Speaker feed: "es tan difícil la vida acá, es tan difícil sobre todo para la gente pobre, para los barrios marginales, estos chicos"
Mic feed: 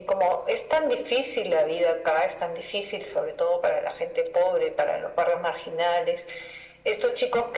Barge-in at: none

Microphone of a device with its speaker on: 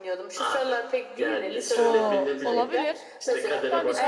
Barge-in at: 2 s

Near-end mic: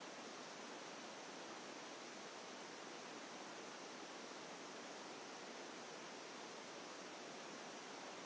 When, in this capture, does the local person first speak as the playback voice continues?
none

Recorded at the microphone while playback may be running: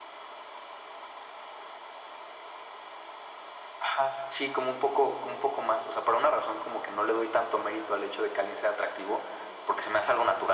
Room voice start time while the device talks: none

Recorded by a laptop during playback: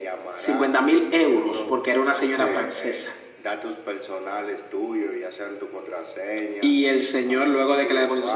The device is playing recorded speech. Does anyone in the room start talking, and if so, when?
1 s

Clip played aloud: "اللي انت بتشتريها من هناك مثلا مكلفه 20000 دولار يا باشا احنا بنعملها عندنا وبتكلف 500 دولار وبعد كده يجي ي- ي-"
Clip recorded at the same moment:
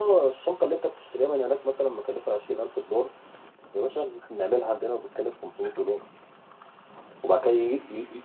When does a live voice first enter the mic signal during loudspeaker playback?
none

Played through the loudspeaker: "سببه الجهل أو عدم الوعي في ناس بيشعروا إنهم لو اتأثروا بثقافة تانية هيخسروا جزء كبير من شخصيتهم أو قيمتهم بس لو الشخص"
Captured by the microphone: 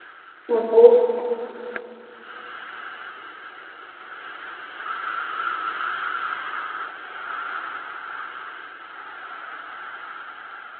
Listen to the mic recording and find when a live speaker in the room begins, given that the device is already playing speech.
0 s

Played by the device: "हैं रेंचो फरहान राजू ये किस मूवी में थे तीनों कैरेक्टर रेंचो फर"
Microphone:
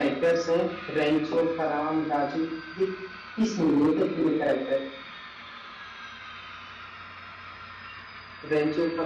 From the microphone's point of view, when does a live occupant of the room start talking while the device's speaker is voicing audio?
none

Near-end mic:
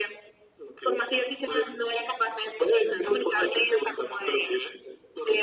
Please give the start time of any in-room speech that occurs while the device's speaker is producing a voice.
none

